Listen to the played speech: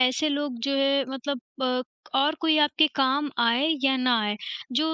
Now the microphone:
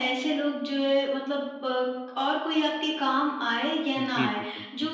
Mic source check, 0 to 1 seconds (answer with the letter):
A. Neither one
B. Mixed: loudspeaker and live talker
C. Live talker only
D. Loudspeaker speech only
D